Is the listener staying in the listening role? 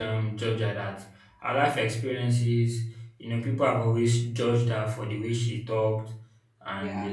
Yes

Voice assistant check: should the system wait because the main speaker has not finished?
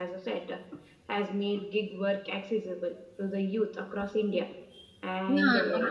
No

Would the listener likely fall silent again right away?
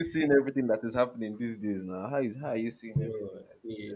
No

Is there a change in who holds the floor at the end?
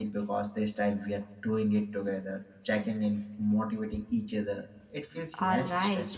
Yes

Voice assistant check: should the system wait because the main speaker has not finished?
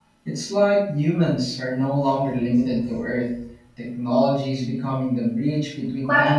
No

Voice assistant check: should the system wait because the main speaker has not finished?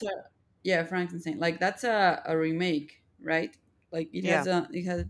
Yes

